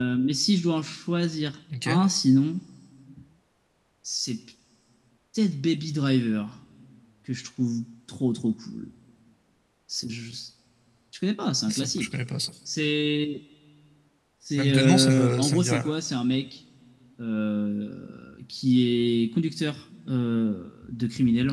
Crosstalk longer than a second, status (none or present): present